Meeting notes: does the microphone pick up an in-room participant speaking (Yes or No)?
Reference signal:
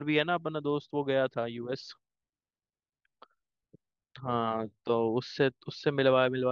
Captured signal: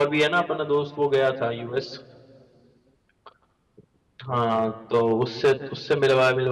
No